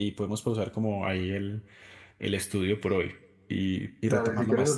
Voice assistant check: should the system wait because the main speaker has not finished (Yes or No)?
No